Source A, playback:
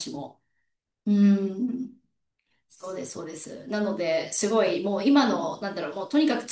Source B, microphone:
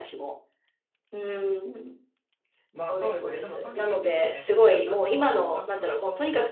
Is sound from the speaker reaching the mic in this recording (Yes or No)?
Yes